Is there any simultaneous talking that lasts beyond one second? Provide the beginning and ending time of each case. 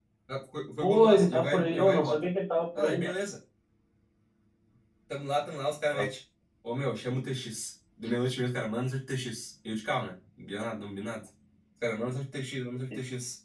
0.8-2.2

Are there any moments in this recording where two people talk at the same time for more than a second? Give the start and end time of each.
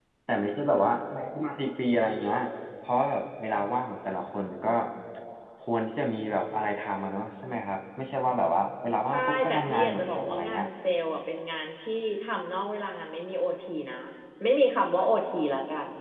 9.1-10.6

